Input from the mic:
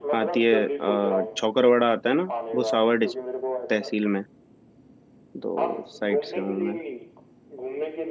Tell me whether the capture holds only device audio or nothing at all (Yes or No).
No